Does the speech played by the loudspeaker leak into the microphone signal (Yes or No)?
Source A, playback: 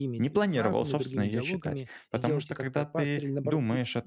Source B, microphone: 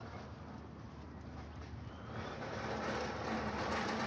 No